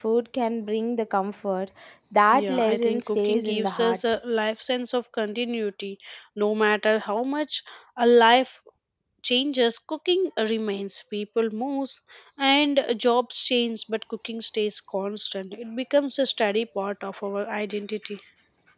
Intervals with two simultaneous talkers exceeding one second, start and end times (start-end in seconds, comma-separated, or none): 2.3-4.0